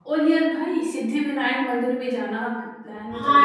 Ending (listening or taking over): taking over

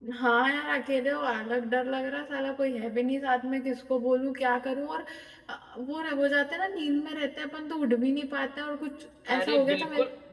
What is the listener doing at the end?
taking over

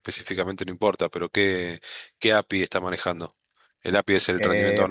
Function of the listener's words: taking over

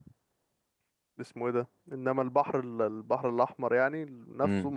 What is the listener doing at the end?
listening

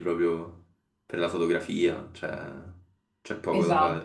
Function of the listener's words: taking over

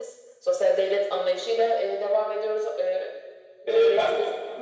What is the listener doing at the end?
taking over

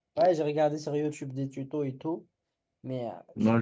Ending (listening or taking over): taking over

